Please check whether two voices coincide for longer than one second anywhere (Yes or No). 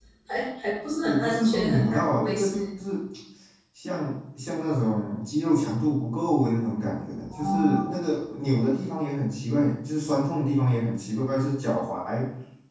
Yes